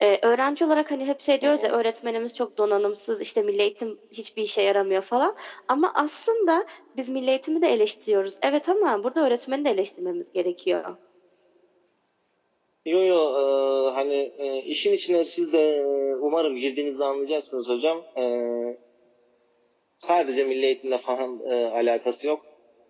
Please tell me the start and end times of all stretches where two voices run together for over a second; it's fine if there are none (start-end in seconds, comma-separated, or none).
none